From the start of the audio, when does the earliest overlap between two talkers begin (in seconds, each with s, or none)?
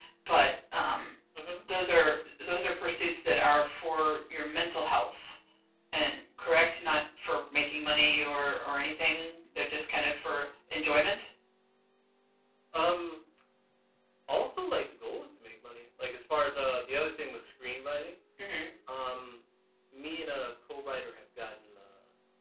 none